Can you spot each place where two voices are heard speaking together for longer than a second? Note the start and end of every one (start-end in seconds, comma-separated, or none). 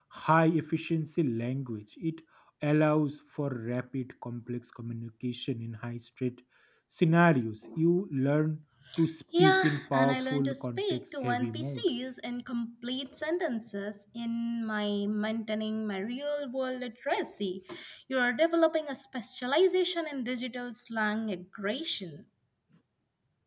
9.4-11.9